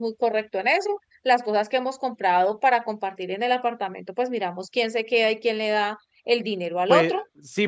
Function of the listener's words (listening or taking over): taking over